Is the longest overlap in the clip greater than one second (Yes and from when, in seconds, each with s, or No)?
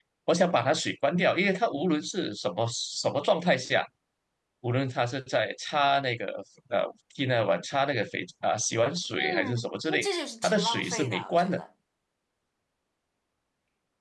Yes, from 9.2 s